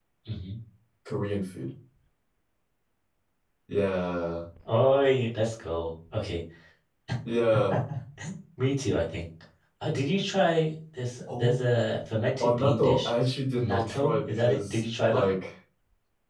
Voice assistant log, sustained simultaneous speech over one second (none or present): present